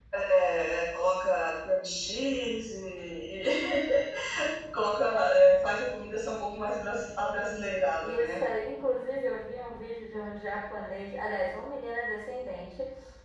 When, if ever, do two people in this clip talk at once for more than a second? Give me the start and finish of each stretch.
none

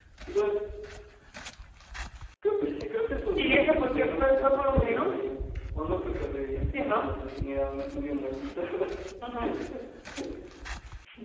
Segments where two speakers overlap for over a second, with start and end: 3.4-5.2

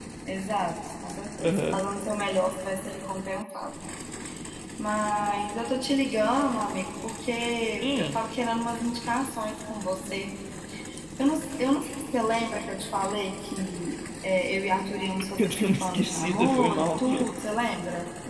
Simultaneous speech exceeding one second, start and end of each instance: 15.4-17.0

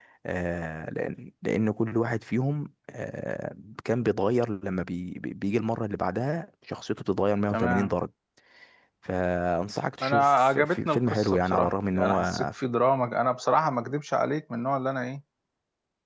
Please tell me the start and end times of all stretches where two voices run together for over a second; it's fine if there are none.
10.0-12.8

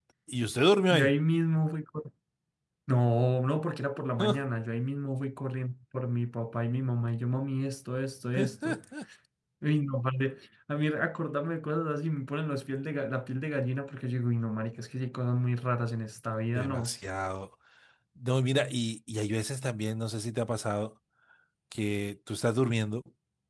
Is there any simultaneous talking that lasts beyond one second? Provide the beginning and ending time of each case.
none

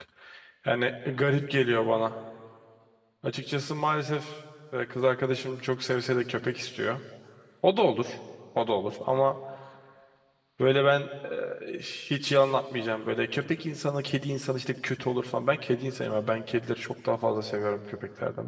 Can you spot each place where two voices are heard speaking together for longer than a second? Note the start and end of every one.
none

